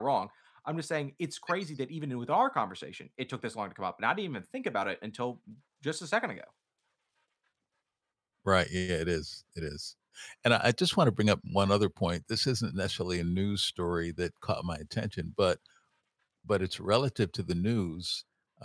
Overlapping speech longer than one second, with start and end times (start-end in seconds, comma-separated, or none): none